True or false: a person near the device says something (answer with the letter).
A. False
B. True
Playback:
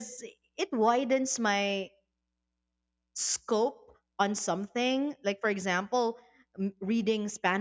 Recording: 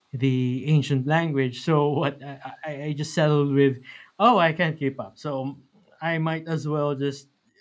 B